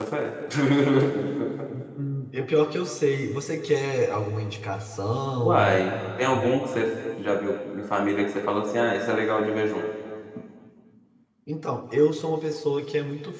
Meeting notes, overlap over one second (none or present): none